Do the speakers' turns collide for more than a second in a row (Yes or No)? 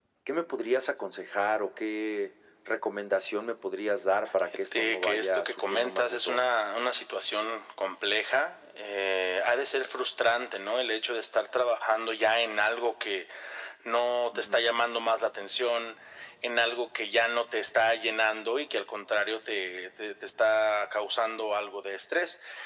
Yes